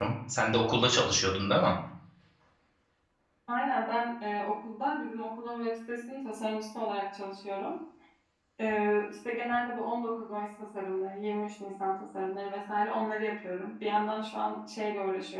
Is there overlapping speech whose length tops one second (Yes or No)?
No